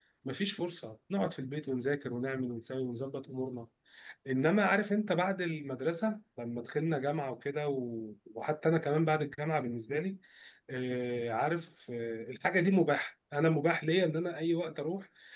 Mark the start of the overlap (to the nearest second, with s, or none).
none